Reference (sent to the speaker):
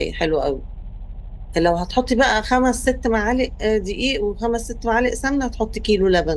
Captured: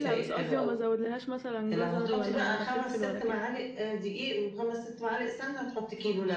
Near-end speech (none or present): present